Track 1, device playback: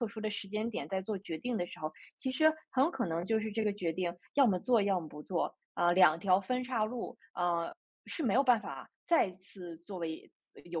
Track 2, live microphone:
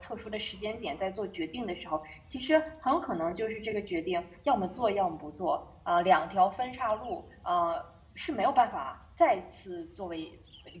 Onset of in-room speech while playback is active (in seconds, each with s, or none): none